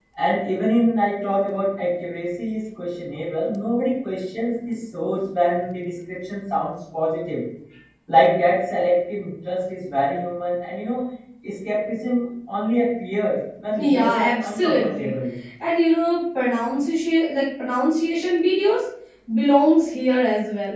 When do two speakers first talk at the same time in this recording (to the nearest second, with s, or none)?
14 s